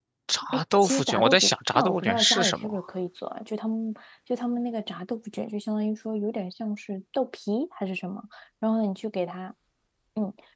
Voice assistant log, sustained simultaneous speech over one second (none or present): present